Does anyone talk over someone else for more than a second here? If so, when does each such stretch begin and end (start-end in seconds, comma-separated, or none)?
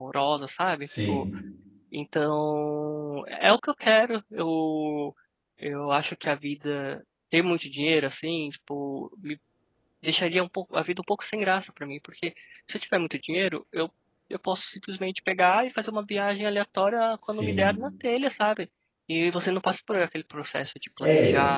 none